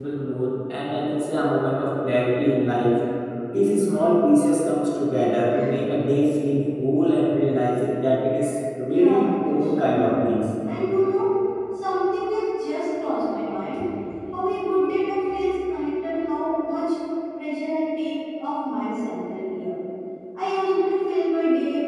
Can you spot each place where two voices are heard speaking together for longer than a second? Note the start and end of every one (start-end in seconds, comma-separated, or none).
8.8-10.1